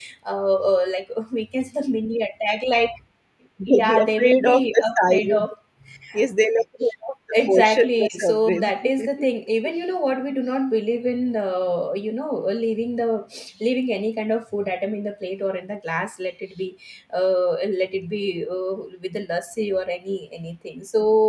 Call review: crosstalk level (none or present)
present